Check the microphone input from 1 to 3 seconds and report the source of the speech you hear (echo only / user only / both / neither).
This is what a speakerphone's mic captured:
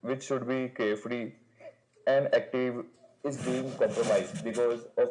echo only